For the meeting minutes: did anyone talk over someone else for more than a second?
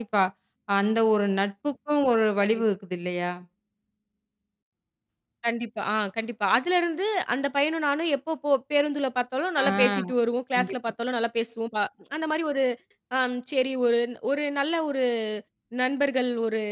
No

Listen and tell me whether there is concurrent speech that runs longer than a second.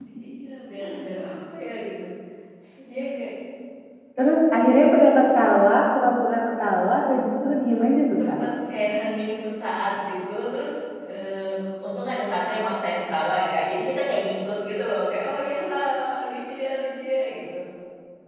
No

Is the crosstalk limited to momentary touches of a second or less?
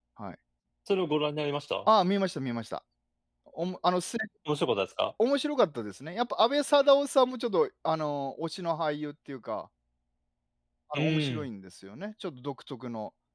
Yes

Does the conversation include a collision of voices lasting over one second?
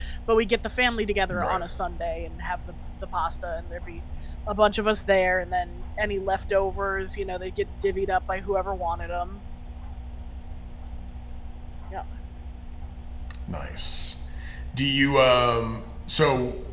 No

